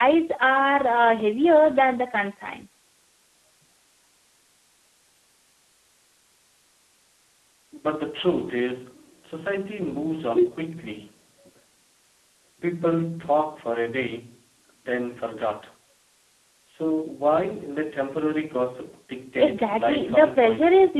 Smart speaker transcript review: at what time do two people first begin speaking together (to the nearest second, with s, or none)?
19 s